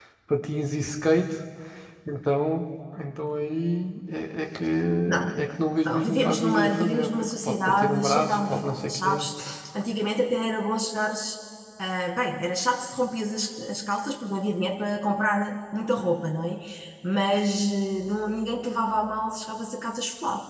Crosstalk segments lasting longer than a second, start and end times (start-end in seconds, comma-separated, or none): 5.8-9.3